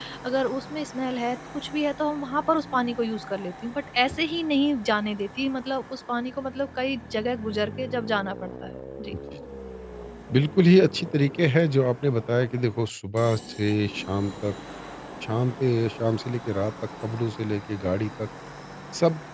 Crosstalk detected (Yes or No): No